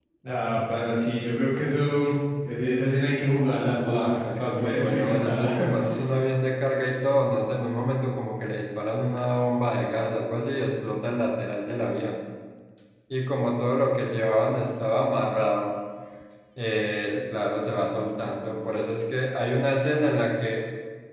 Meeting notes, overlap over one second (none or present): present